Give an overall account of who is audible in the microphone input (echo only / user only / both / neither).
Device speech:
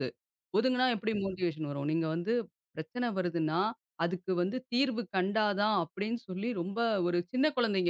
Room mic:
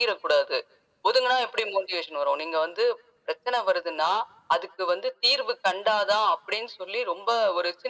echo only